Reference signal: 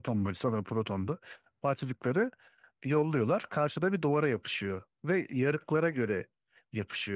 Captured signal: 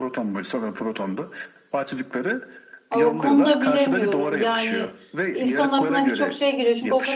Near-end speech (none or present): present